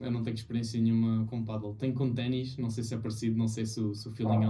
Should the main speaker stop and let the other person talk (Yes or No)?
Yes